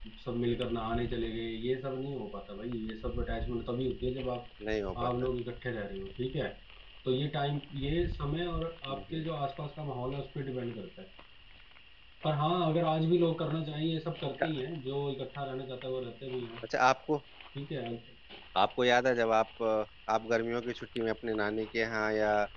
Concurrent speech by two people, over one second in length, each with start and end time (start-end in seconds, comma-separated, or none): none